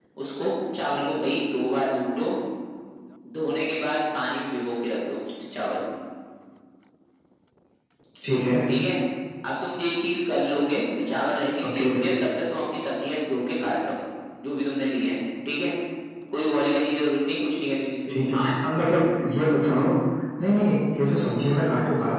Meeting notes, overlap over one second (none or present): none